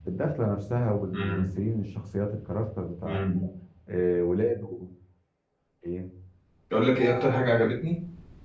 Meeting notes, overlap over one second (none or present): none